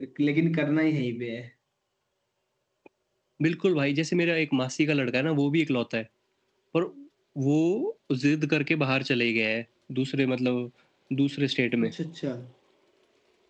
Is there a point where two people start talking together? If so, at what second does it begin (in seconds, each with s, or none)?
none